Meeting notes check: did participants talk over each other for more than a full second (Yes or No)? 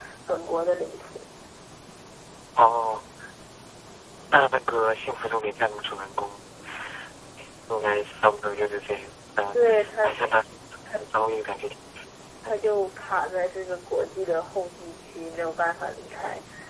No